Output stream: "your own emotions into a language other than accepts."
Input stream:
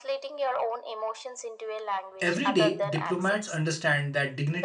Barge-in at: 2 s

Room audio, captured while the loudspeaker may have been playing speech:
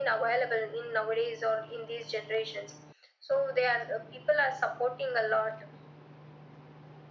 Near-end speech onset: none

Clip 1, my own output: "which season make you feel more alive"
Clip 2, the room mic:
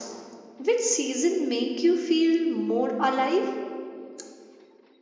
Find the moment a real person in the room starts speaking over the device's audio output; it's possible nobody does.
none

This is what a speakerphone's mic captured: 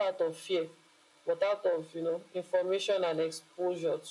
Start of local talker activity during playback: none

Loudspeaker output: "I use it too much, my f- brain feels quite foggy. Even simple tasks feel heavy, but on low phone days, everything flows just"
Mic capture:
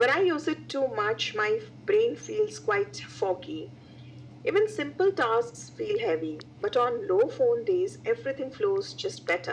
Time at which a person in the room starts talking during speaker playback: none

